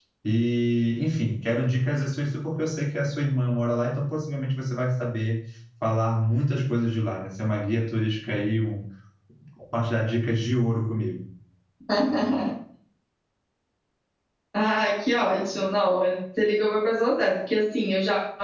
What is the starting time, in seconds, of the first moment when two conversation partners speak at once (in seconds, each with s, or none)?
none